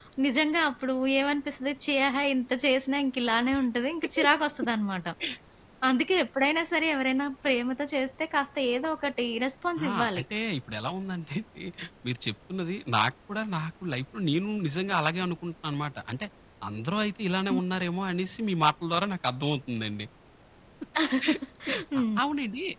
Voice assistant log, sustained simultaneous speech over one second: none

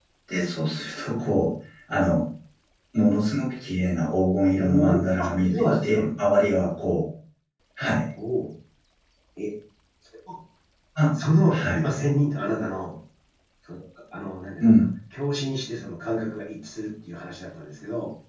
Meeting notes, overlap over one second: present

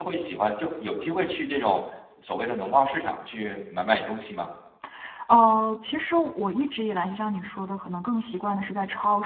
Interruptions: none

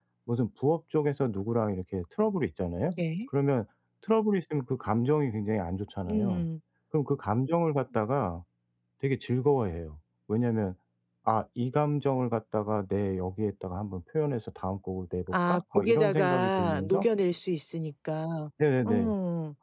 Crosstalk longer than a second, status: present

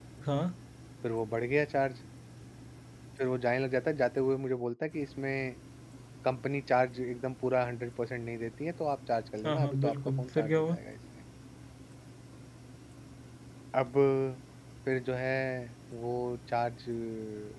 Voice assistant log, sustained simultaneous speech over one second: present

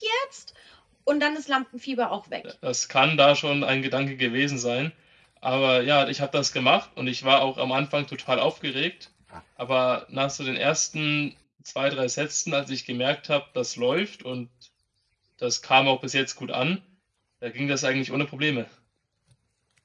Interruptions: none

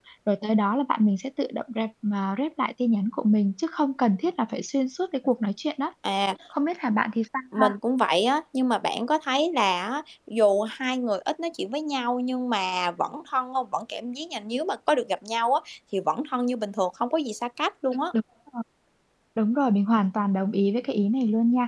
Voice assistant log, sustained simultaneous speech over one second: none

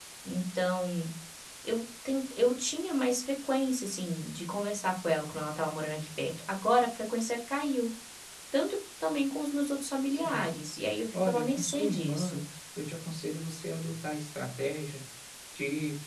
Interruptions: present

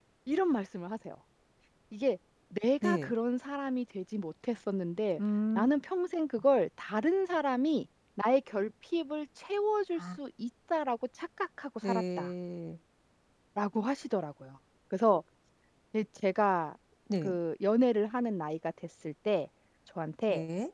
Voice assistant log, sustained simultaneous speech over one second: none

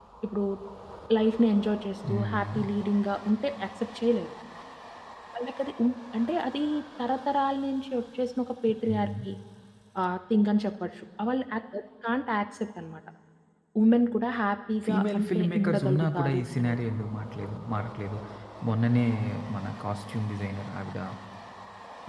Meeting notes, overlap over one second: present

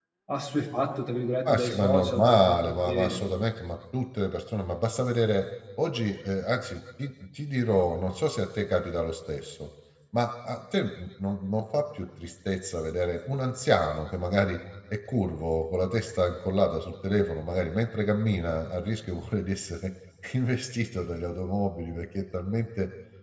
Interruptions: present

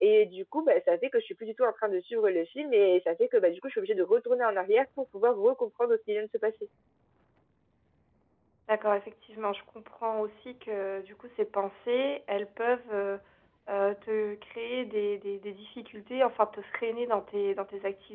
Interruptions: none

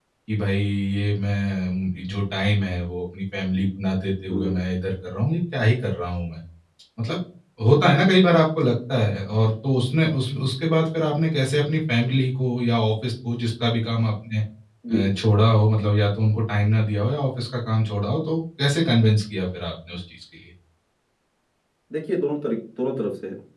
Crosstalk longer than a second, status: none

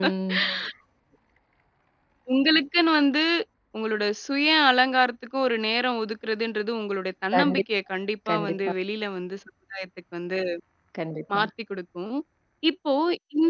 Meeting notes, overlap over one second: none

